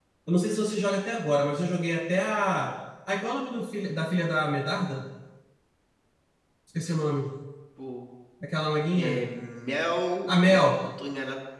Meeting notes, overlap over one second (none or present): none